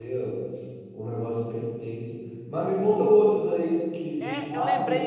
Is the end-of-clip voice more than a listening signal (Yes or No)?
Yes